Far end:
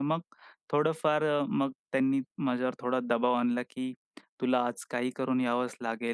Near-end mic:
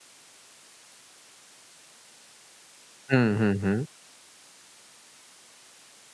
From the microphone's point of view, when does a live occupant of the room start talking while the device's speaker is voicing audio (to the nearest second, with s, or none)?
3 s